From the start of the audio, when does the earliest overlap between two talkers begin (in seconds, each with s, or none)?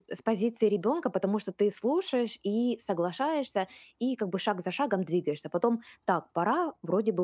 none